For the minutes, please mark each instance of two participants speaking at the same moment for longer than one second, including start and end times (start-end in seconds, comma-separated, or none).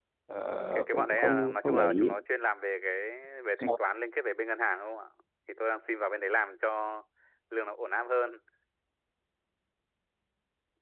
0.7-2.1